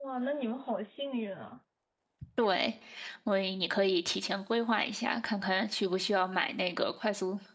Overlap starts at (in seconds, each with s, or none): none